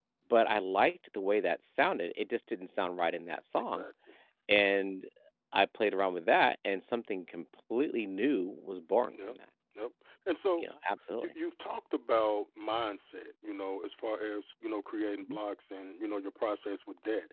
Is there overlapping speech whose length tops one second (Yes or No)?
No